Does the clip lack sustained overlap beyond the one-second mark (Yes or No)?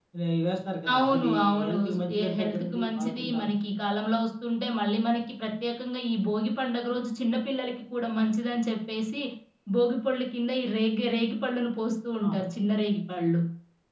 No